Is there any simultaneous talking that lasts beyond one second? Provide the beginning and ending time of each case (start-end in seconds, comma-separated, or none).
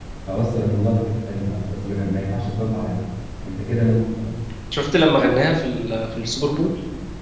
none